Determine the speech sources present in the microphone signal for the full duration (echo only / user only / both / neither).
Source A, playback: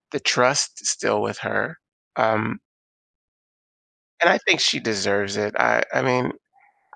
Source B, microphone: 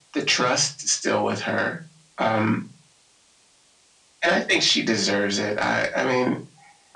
echo only